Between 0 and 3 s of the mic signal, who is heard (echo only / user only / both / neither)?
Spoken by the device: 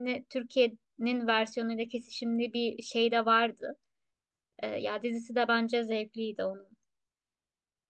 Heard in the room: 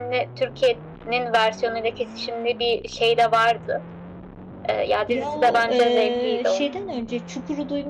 echo only